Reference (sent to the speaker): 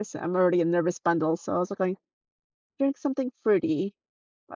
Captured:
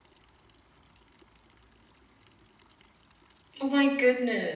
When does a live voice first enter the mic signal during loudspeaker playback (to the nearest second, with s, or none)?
4 s